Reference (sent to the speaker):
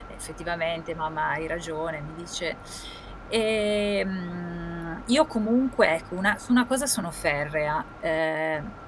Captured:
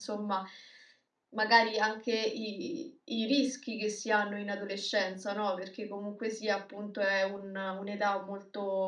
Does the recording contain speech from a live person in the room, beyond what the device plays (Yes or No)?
Yes